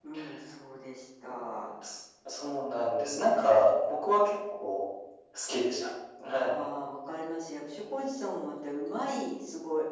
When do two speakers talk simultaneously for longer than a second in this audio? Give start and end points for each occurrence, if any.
none

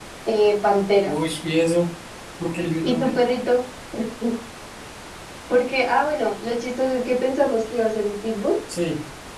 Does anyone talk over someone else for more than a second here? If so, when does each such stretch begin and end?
none

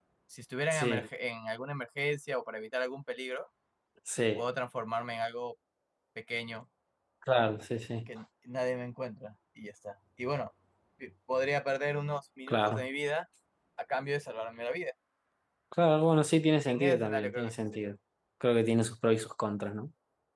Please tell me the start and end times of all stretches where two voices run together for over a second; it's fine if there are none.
16.7-17.9

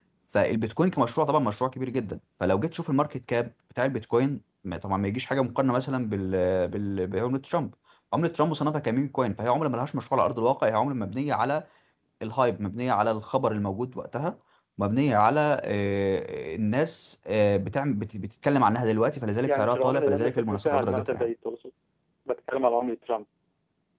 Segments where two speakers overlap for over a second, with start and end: 19.4-21.3

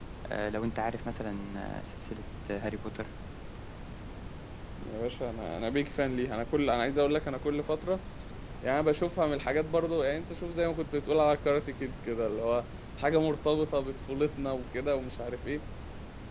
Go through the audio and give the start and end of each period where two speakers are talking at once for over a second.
none

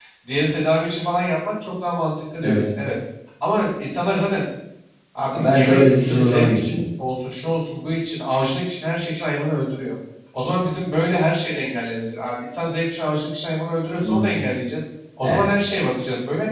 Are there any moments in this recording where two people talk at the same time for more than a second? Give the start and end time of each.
5.3-6.9

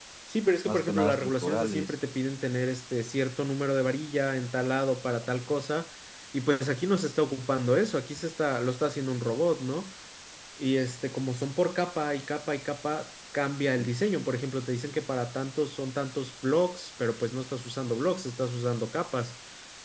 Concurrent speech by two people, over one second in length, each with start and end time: 0.6-1.9

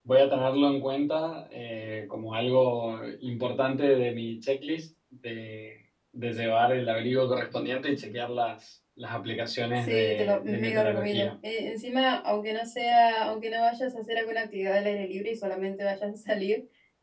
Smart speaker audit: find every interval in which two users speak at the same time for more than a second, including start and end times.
9.8-11.3

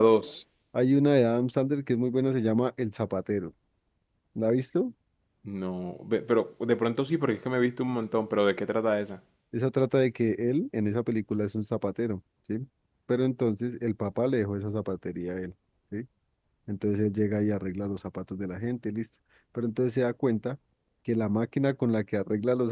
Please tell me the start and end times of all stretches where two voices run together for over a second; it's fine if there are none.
none

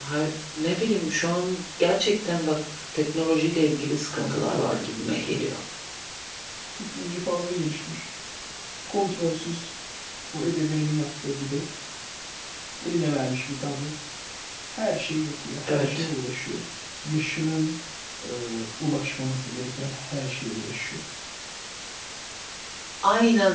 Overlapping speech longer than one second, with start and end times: 4.2-5.4

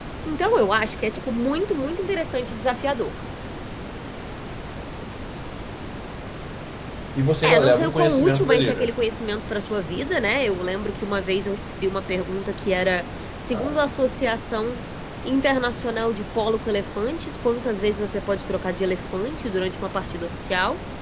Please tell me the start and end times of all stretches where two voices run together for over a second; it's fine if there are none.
7.4-8.9

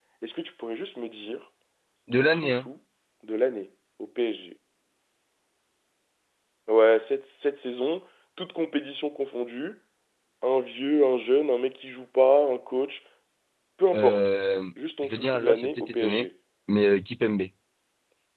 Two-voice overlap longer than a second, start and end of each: 15.0-16.3

